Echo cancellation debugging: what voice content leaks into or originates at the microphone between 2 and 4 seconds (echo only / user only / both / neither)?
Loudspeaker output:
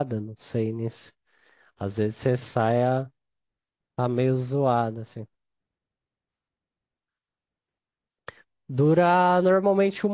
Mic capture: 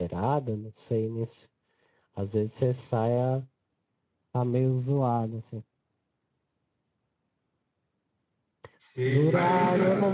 echo only